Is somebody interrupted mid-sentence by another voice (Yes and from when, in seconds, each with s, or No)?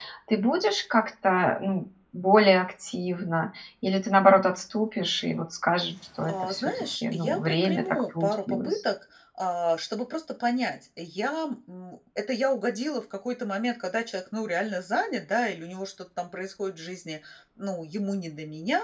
Yes, from 6.2 s